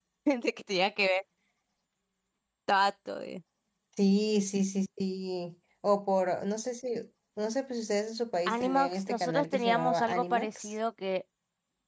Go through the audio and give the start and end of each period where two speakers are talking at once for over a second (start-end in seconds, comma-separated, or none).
8.5-10.7